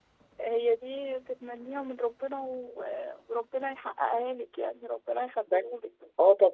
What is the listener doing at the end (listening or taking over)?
taking over